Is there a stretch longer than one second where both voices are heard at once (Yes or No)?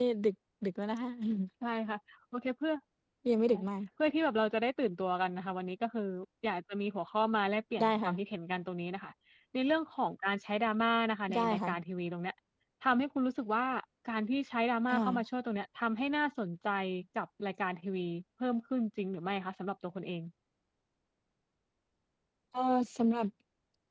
No